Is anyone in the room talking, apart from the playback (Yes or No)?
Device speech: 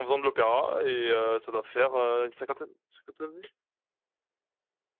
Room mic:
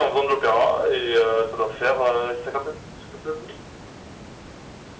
No